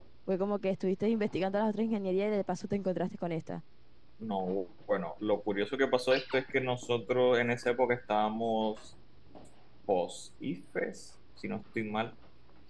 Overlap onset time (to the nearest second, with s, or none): none